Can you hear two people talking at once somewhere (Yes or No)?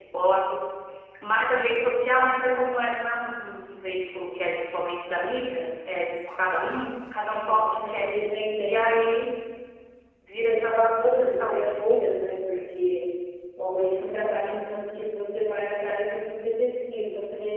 Yes